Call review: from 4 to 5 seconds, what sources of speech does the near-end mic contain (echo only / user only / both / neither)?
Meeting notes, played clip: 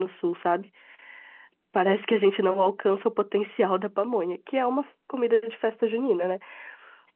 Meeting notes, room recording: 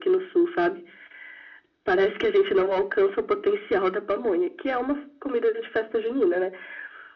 echo only